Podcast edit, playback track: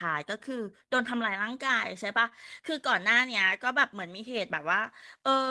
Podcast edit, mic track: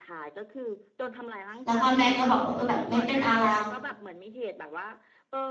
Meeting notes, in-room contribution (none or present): present